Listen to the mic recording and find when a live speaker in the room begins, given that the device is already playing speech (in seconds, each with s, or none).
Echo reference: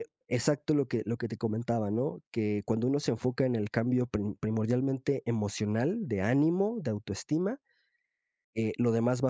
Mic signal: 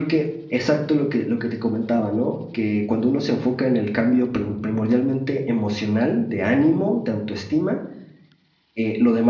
none